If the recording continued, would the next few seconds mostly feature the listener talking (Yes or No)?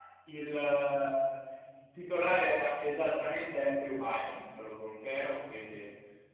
No